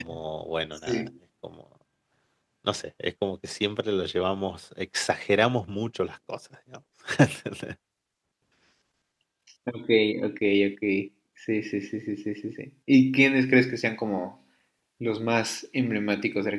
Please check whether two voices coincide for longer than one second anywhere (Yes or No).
No